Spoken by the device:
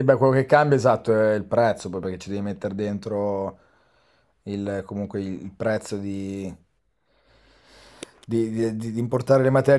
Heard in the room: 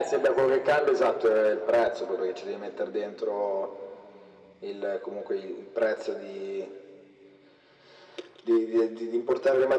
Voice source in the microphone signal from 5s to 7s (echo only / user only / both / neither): echo only